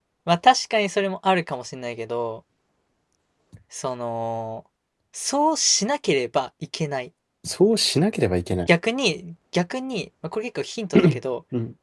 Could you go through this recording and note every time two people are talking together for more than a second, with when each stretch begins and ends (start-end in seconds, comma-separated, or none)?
none